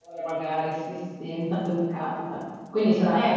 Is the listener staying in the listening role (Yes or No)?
Yes